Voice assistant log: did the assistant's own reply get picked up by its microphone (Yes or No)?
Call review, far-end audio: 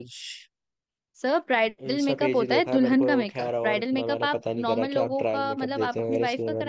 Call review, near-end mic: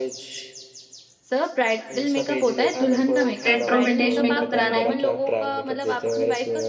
Yes